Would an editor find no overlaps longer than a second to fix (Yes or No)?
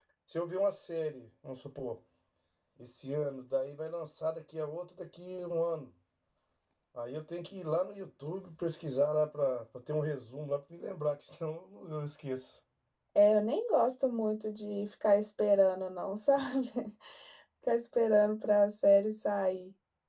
Yes